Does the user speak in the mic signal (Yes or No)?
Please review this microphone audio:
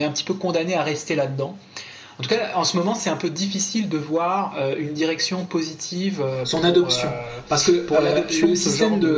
Yes